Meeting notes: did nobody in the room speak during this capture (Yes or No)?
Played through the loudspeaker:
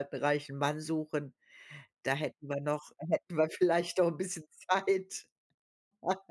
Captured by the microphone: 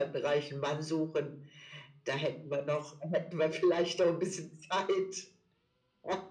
Yes